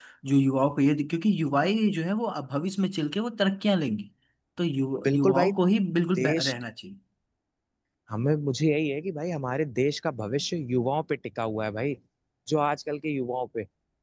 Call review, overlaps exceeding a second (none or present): none